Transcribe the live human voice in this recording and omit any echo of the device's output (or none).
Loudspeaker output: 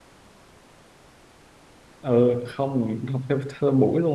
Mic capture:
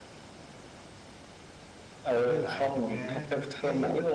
với lại thực ra cái